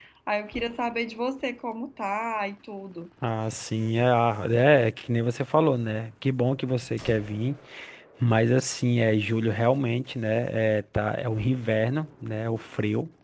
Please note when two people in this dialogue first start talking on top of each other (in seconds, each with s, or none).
none